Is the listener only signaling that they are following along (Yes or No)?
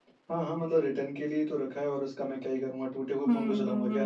No